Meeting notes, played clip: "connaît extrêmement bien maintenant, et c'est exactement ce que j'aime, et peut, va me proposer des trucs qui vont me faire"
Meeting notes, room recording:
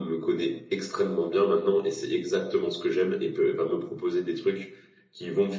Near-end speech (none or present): none